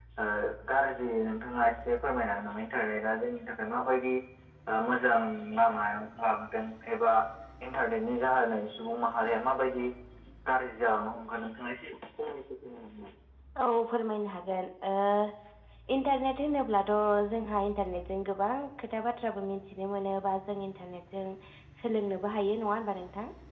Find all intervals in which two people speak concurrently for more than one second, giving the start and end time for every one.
none

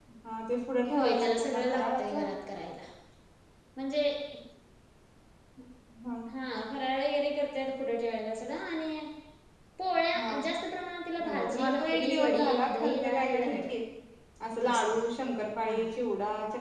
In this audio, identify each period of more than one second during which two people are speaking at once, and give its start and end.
0.9-2.3, 11.2-13.7

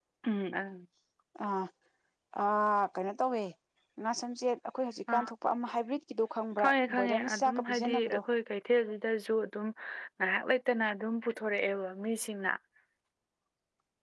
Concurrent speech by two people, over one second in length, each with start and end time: 6.6-8.2

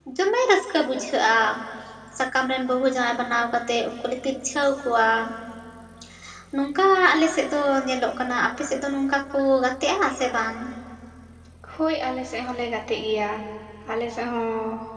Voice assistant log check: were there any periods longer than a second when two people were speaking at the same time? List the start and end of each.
none

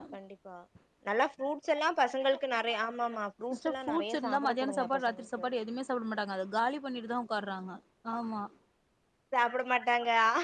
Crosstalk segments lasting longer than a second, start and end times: 3.6-5.5

